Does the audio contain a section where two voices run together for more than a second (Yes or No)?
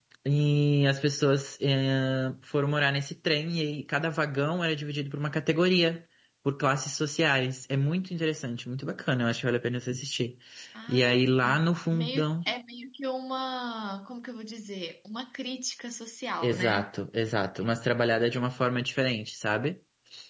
No